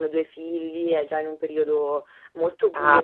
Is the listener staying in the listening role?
No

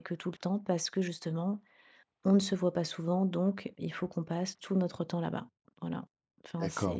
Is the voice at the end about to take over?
Yes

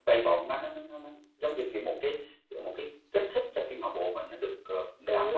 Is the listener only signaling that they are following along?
No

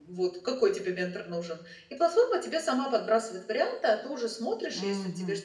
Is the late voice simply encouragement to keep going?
Yes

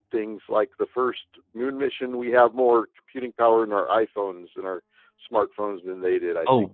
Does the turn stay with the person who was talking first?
No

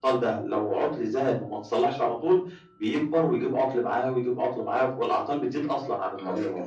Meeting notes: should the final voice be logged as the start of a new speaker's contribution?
Yes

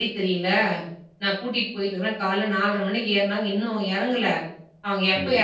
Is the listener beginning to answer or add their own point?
No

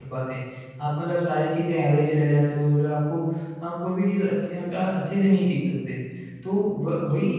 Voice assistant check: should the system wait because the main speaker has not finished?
Yes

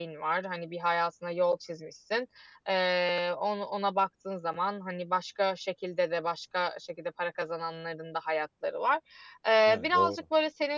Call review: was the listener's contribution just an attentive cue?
Yes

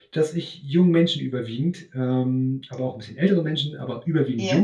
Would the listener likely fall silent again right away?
Yes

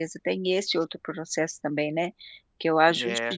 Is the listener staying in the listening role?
Yes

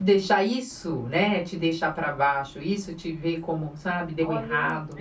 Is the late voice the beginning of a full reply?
Yes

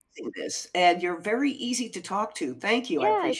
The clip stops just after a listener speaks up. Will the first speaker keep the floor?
No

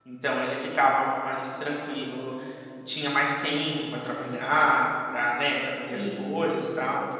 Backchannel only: Yes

